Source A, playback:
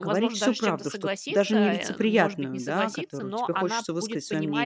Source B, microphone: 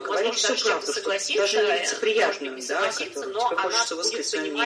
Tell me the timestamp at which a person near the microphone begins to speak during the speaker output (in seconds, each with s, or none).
none